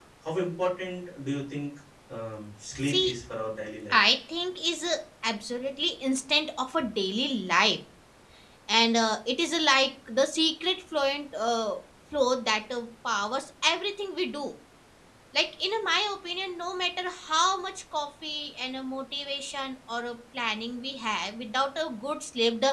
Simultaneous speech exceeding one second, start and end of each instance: none

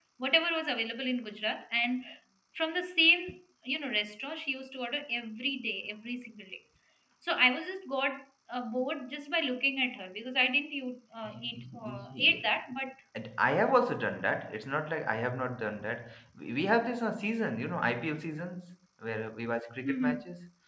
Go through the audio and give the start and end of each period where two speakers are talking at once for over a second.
11.2-12.5

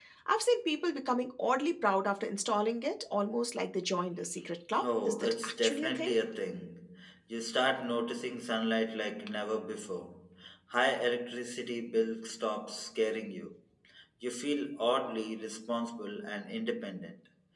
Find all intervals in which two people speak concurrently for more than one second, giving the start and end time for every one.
4.8-6.1

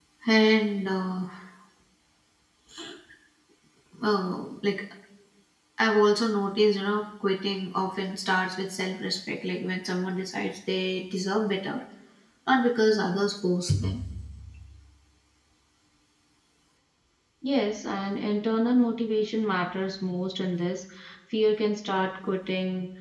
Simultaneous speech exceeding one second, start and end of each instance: none

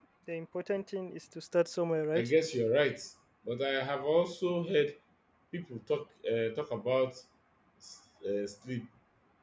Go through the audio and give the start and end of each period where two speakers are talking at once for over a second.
none

